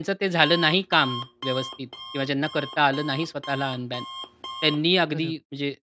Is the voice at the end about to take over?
No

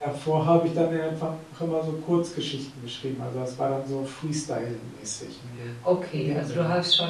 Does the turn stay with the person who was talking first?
No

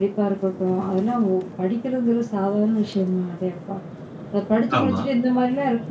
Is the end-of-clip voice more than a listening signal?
No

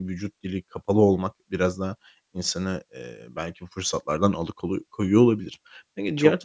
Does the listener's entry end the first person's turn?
Yes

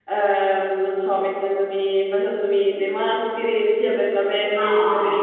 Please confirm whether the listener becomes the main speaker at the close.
No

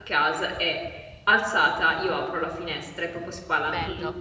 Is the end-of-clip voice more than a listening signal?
No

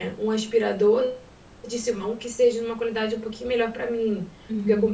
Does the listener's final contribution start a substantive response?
No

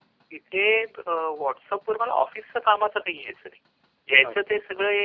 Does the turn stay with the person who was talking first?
Yes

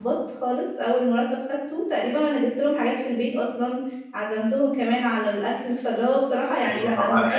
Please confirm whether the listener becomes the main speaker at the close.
Yes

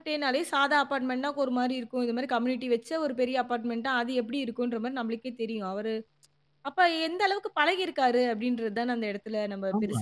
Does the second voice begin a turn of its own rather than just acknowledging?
Yes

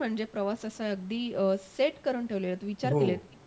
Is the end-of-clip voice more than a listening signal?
No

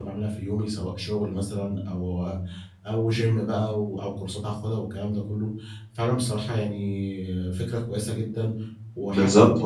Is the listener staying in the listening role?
No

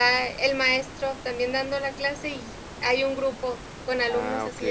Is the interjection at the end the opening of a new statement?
No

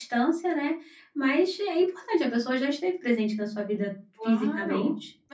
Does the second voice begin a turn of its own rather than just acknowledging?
Yes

